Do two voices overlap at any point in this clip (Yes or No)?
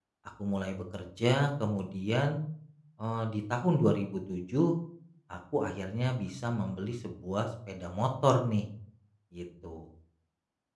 No